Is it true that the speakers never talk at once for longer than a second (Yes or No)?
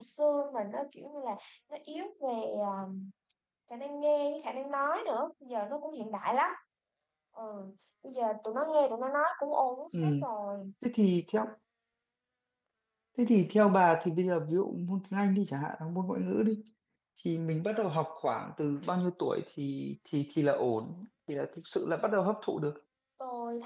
Yes